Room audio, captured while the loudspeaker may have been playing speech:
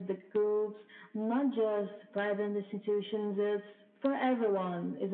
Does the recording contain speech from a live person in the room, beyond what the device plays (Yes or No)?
No